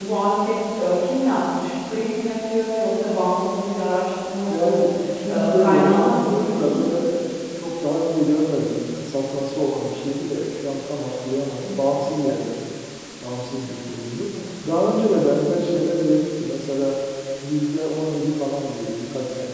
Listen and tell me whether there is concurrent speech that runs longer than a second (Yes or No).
Yes